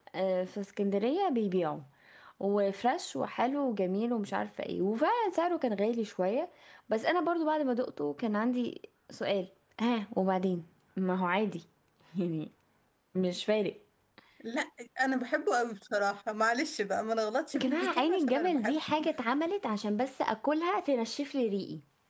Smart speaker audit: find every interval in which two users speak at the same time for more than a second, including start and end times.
17.5-18.8

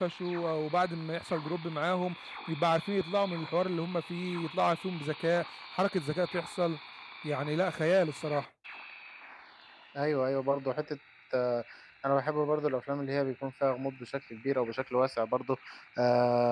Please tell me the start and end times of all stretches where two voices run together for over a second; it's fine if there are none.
none

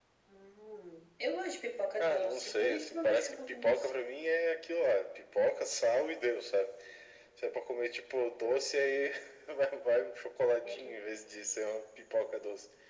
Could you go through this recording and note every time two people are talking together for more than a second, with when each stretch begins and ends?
2.0-3.9

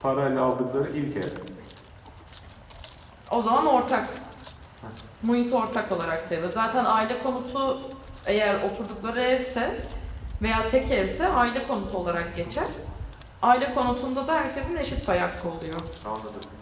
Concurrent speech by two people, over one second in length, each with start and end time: none

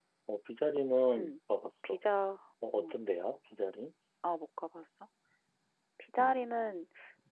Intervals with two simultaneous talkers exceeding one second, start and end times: none

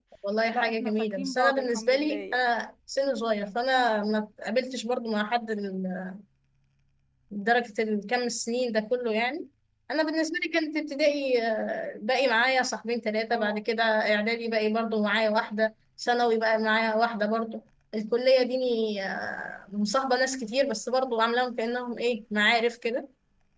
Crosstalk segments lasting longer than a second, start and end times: 0.5-2.4

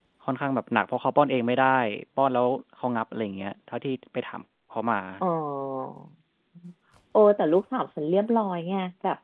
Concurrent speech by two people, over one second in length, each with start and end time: none

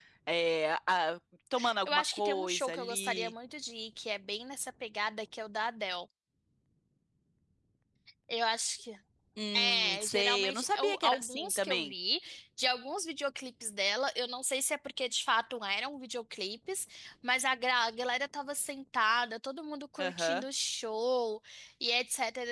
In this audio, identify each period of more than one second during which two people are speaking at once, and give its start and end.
1.9-3.3, 9.6-11.9

